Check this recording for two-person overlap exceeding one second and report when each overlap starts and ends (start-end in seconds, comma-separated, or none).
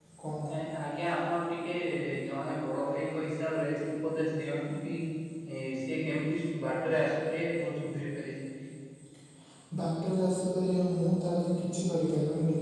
none